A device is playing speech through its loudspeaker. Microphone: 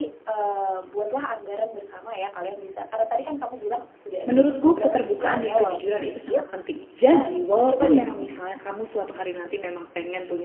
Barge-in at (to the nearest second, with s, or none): 4 s